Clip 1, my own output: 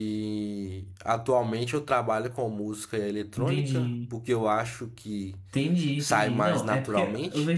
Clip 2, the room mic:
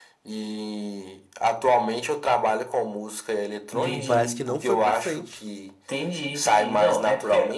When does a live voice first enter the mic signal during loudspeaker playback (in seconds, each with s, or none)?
3.7 s